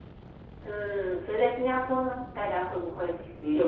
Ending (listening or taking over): taking over